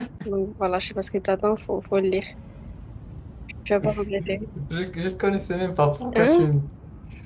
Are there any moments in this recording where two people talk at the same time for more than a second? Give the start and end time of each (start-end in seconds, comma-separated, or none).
none